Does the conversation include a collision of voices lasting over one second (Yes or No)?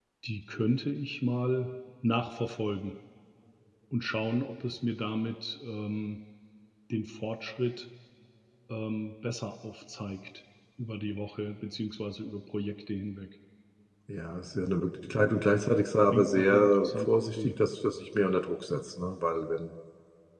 Yes